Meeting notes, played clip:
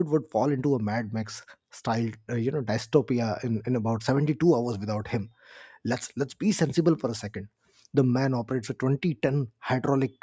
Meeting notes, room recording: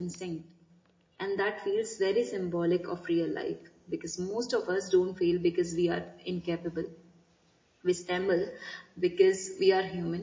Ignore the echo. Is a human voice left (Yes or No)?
Yes